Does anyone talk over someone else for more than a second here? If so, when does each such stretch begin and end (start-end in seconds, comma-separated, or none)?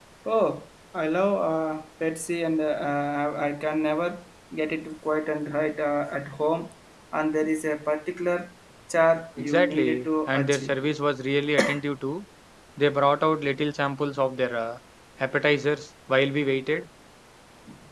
9.4-10.8